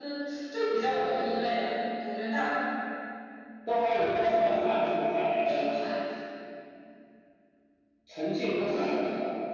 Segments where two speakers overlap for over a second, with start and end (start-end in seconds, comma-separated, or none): none